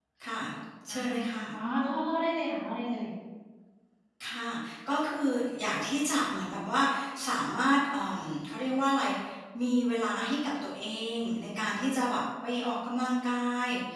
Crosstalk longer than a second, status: none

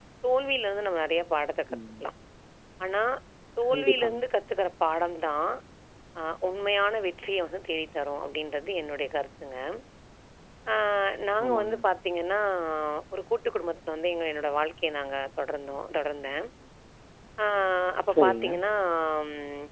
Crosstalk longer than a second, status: none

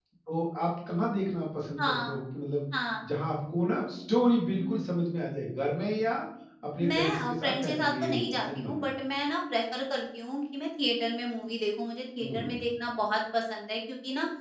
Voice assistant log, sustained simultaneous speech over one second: present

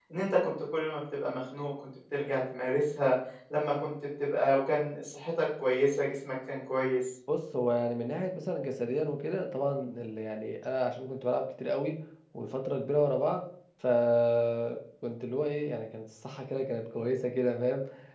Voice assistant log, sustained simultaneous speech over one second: none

